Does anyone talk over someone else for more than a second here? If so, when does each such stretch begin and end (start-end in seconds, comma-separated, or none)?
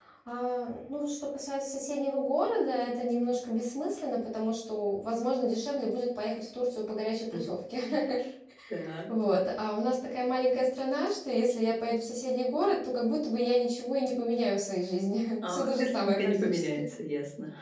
15.5-16.8